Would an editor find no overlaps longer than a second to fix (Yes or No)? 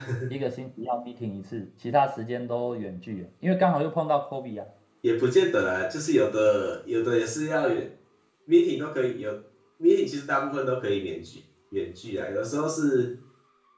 Yes